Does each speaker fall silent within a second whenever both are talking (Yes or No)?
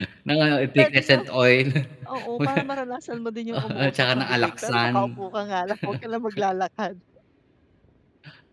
No